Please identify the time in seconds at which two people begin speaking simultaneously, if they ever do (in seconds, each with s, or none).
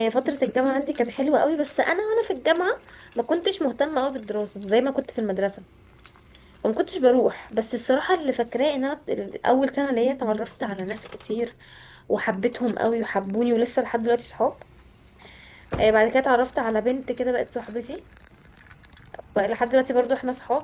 none